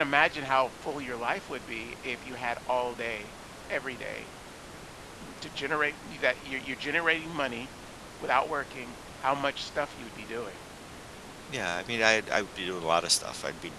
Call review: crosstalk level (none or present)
none